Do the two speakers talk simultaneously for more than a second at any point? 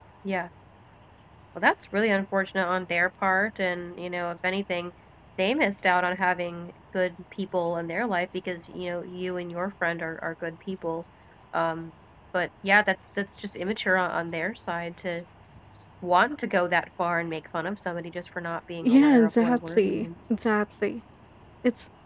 Yes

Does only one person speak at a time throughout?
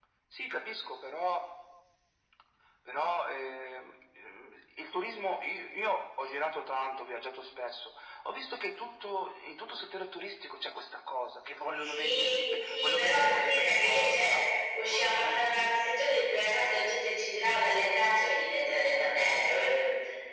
No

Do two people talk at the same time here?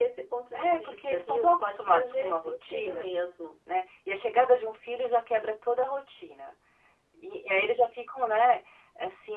Yes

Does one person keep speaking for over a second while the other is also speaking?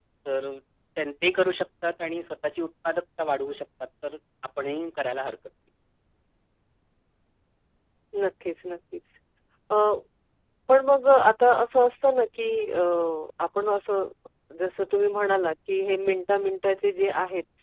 No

